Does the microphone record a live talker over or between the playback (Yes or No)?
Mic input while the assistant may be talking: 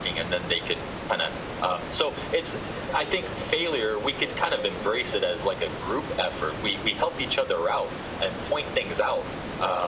No